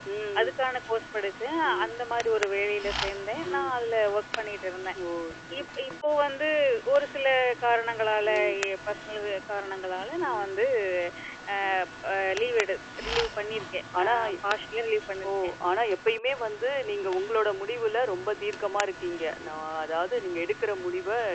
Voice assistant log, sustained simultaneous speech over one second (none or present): none